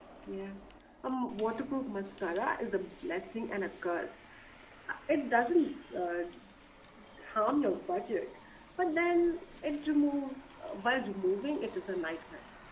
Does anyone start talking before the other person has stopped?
No

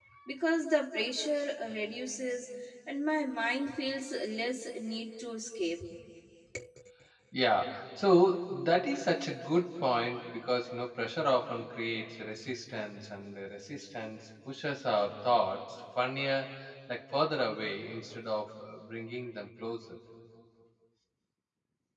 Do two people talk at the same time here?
No

